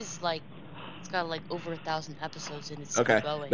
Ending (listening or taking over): taking over